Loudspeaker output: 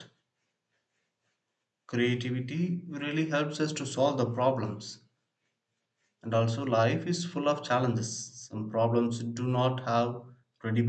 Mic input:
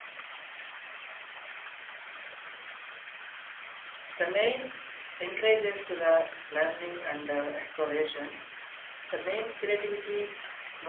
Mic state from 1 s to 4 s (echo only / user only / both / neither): neither